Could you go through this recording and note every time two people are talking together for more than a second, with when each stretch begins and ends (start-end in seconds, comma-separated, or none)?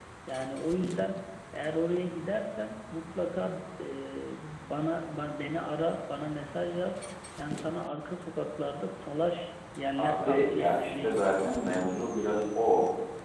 10.0-11.4